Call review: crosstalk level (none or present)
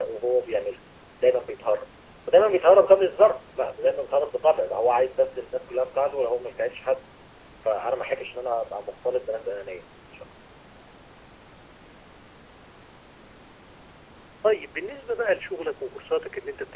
none